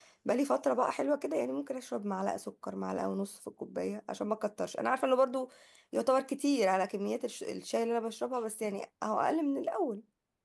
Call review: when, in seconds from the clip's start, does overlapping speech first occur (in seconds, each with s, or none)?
none